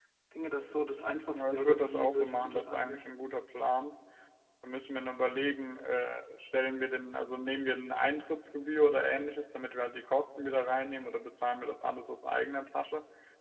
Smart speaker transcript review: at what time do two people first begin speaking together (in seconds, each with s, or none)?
1.3 s